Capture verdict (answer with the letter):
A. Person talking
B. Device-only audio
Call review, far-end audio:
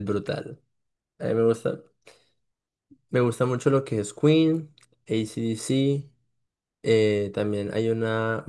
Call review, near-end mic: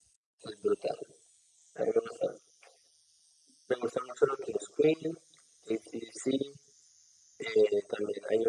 B